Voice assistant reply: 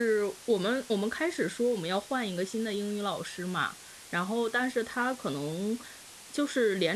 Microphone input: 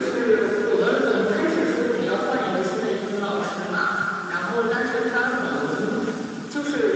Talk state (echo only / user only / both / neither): echo only